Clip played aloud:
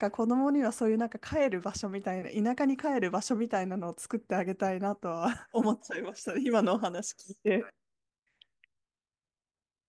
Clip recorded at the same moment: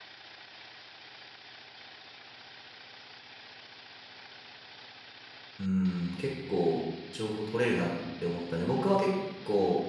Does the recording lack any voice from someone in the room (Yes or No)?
No